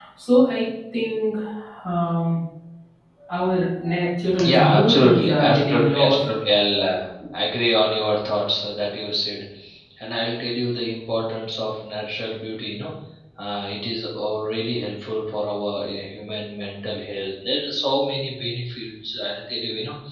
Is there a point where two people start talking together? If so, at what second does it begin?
4.4 s

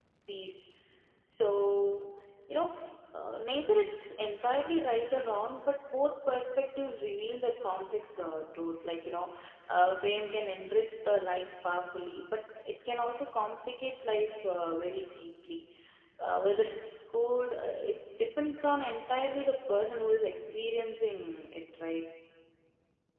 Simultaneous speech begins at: none

